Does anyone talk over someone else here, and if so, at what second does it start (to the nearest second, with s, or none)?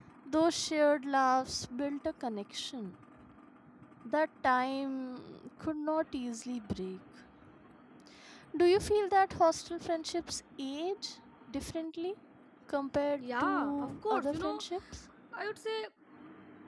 13 s